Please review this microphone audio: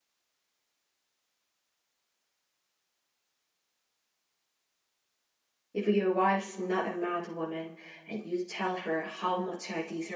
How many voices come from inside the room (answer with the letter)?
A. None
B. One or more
B